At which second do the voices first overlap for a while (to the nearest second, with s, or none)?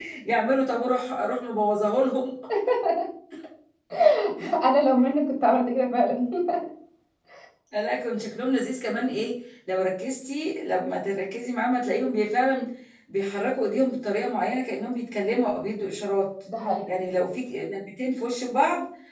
none